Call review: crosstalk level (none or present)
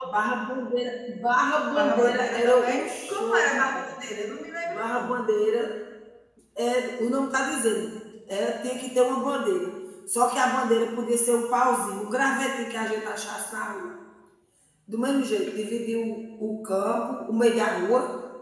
present